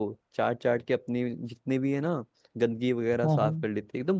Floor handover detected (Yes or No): No